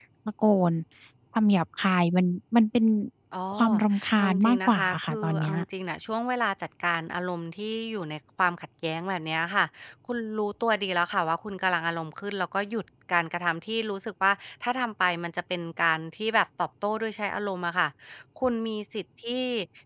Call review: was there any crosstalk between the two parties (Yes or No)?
Yes